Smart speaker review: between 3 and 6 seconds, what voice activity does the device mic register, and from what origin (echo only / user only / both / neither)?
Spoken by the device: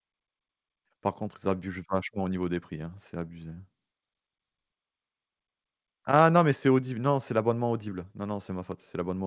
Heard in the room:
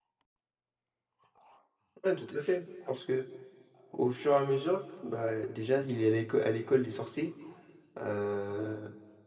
user only